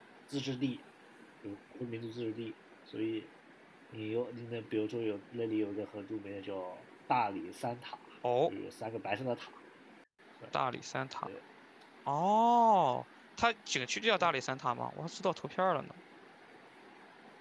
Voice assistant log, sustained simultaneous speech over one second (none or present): none